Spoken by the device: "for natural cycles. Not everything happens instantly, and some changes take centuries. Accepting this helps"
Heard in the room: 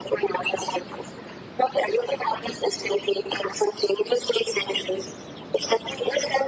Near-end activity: none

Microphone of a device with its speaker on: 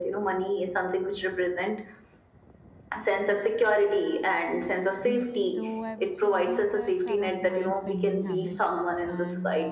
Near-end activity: present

